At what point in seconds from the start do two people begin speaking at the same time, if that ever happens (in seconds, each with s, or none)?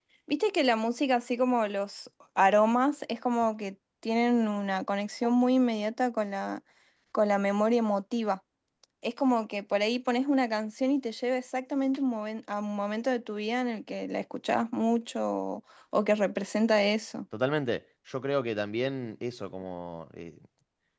none